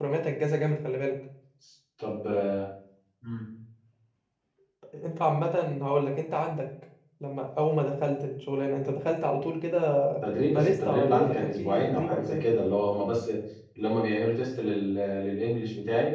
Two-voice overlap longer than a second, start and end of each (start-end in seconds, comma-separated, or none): 10.5-12.4